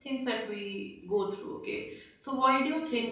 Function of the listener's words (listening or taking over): listening